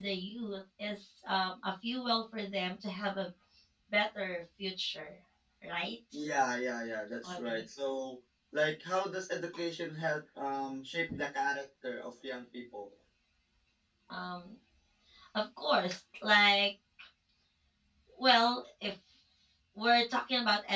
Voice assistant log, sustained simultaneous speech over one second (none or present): none